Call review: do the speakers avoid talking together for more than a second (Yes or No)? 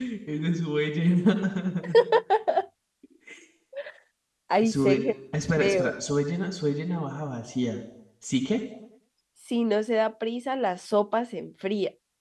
Yes